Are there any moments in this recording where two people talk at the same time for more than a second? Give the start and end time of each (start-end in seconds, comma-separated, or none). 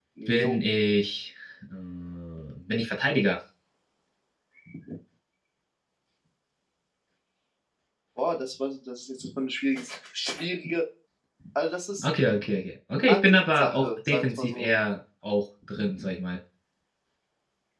13.1-14.7